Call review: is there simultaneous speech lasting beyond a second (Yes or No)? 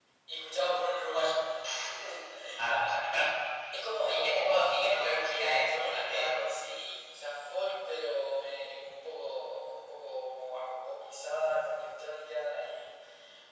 Yes